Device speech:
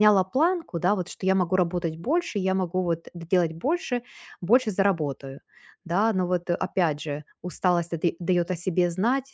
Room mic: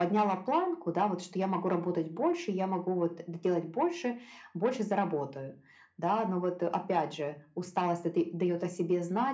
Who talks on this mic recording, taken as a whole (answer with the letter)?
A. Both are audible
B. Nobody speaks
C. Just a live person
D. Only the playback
D